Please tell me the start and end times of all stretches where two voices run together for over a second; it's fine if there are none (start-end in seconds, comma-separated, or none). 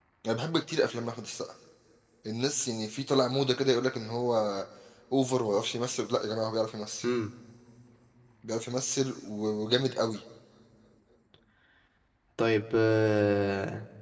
none